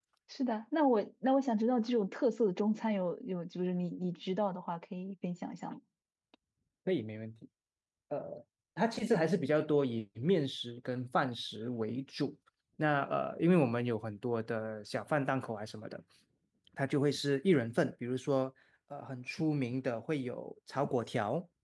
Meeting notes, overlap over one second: none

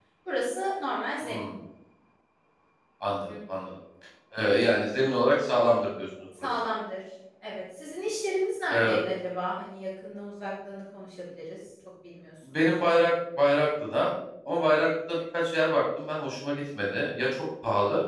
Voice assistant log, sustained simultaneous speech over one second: none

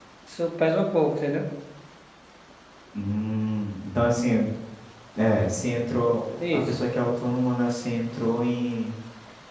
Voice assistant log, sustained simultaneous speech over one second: none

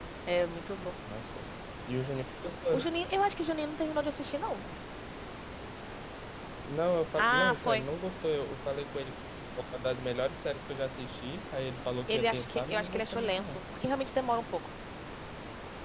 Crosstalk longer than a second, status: present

